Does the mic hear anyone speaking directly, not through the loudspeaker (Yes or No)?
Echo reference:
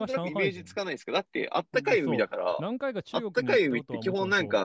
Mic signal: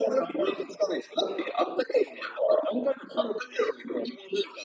No